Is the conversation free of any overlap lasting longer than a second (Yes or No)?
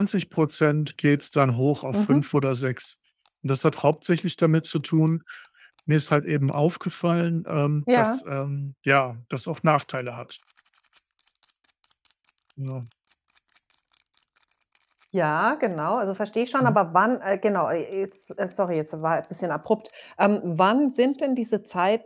Yes